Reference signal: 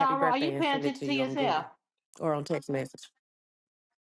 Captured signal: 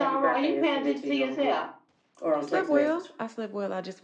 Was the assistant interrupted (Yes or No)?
Yes